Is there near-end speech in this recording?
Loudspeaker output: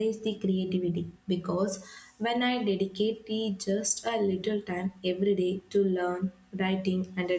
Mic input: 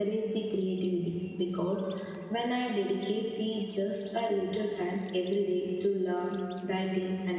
No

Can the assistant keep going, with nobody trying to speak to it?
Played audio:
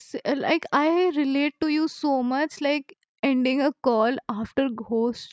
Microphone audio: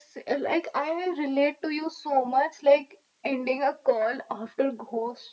Yes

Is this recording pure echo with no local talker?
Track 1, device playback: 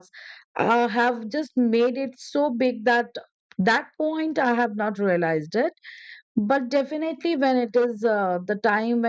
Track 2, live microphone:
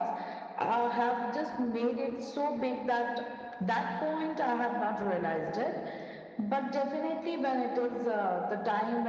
Yes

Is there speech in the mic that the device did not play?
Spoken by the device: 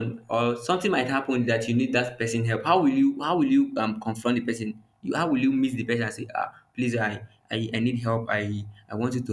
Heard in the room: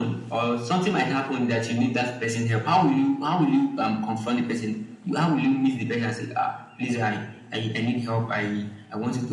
No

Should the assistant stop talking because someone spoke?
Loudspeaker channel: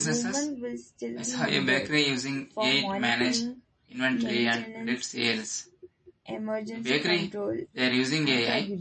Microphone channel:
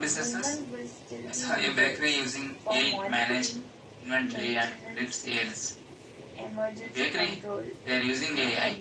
No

